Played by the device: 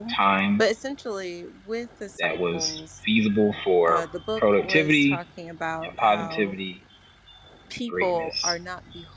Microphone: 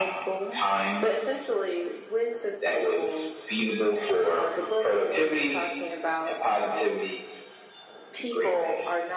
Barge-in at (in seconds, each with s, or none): none